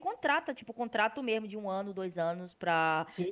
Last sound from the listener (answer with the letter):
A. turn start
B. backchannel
A